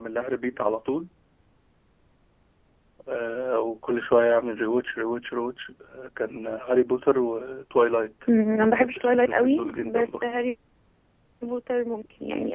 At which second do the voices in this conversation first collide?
8.5 s

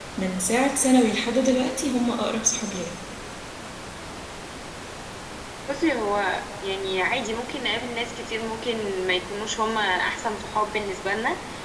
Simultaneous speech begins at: none

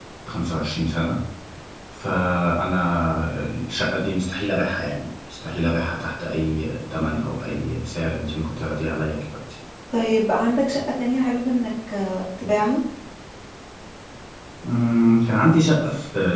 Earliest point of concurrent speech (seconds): none

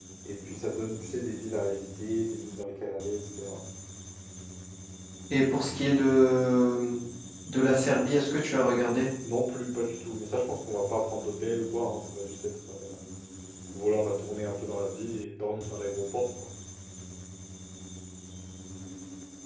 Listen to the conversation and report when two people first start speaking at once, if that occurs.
none

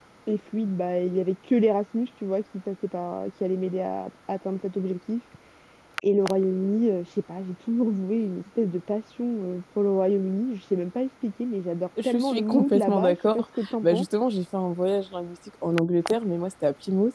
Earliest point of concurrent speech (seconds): 12.0 s

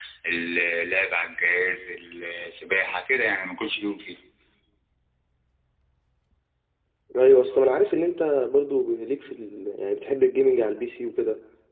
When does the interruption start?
none

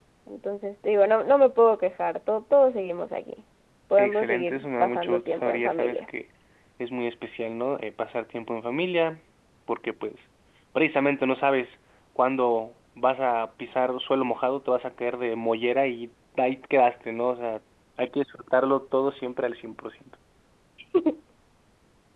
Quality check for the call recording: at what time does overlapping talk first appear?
4.0 s

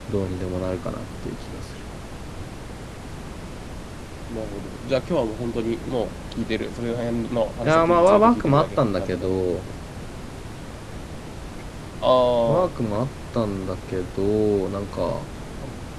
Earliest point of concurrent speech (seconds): 7.6 s

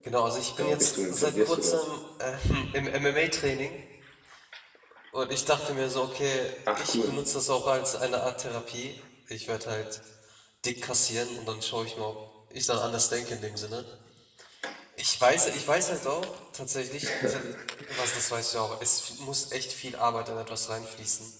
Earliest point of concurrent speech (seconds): 0.6 s

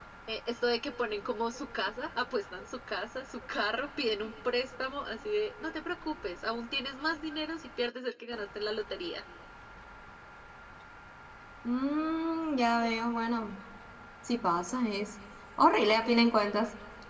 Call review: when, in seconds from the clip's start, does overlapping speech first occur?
none

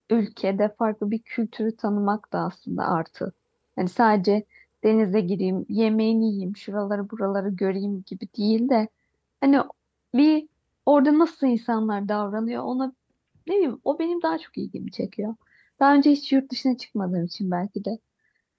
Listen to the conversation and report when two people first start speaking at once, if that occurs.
none

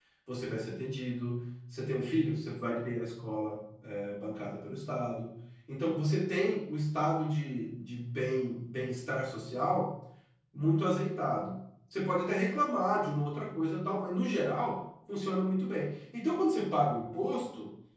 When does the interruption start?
none

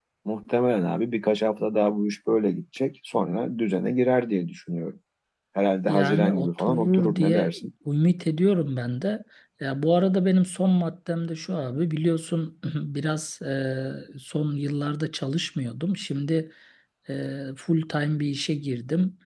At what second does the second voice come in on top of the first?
5.8 s

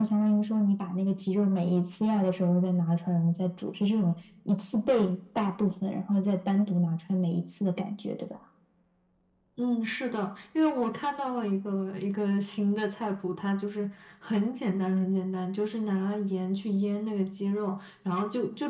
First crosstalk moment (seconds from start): none

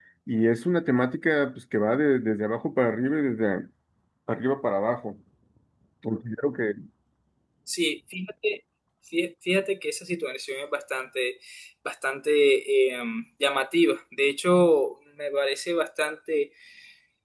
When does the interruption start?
none

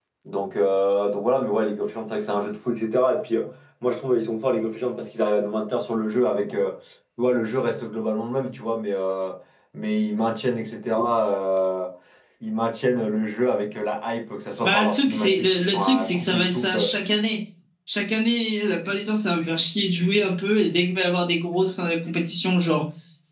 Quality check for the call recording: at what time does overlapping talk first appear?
14.6 s

